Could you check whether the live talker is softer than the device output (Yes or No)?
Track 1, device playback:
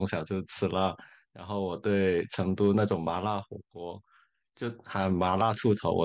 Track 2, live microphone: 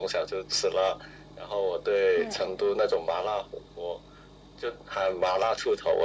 Yes